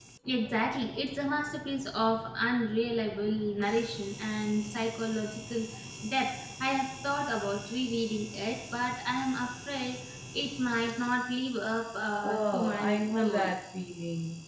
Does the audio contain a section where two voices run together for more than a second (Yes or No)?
Yes